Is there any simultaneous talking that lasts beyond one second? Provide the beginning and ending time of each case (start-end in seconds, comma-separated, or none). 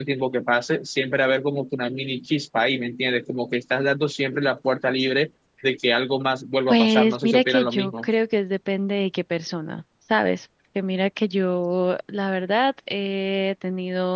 6.7-8.1